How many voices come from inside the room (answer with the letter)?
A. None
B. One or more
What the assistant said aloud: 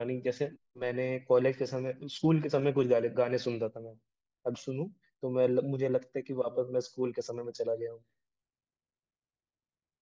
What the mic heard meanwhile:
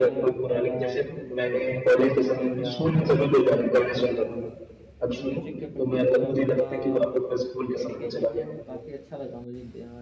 B